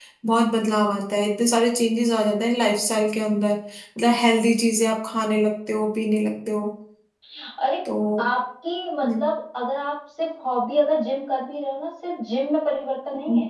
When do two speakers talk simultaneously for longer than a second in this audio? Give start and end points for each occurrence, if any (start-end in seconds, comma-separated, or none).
none